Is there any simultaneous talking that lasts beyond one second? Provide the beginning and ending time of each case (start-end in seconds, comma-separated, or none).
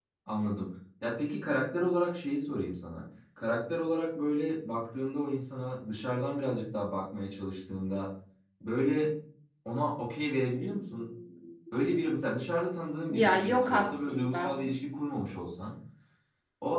13.1-14.6